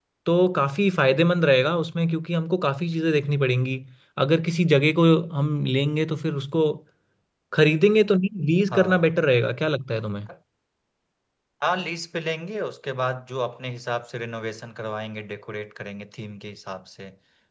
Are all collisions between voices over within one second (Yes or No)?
Yes